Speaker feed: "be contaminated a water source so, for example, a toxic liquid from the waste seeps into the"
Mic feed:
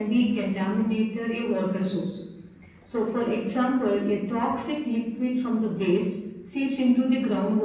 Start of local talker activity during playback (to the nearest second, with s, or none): none